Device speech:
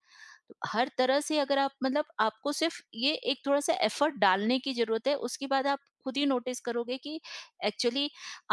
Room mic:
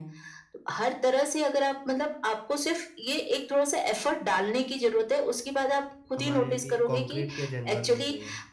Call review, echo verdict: present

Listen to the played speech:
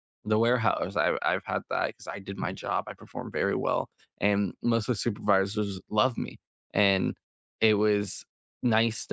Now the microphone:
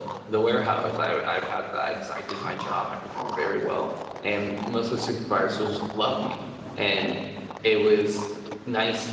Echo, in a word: present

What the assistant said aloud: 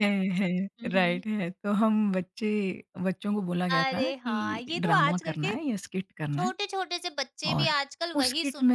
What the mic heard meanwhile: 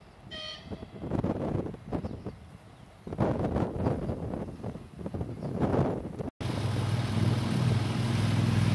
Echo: none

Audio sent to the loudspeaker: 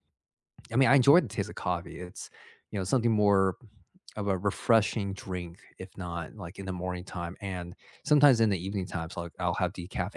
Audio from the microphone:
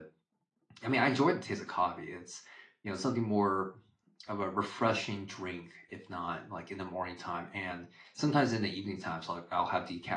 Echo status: present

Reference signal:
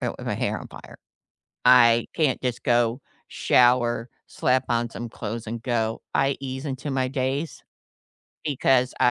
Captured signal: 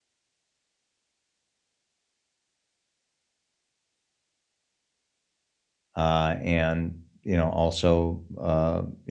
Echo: none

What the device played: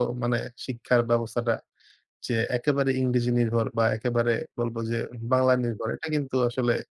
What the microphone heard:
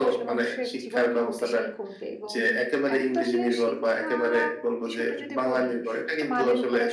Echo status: present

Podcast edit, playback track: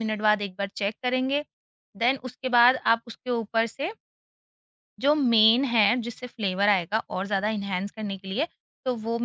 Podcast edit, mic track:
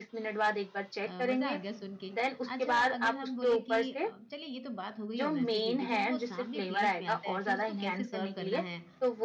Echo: present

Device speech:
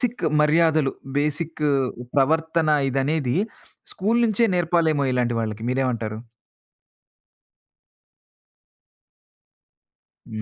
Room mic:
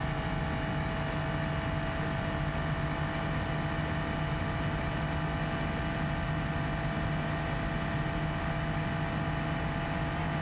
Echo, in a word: none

